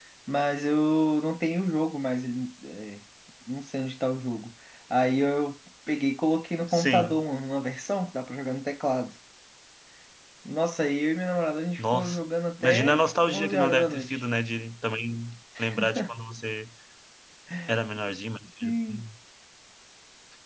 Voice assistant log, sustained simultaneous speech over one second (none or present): present